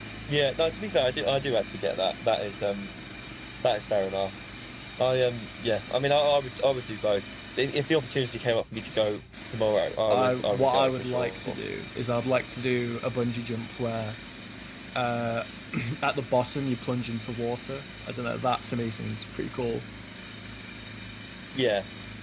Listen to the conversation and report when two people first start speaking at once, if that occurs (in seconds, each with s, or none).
10.1 s